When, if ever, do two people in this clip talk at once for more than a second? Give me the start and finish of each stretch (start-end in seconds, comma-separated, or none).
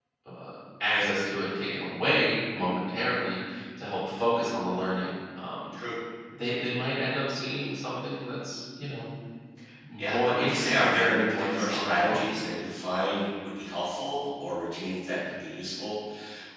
10.0-12.3